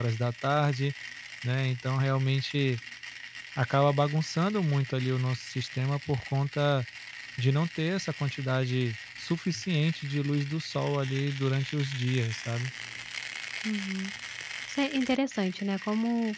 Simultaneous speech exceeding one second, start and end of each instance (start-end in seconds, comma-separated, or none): none